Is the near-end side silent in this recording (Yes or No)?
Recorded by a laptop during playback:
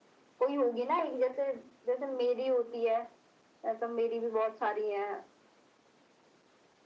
Yes